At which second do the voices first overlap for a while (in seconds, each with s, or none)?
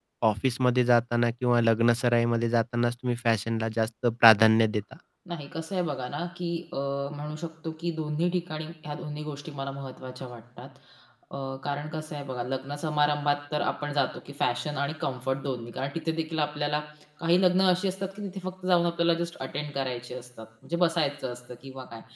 none